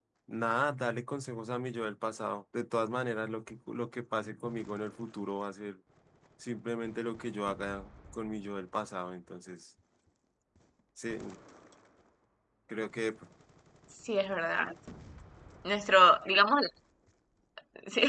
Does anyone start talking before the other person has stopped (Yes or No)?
No